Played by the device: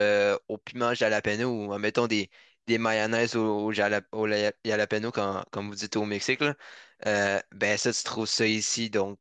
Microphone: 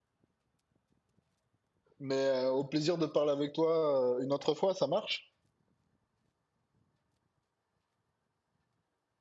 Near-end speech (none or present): present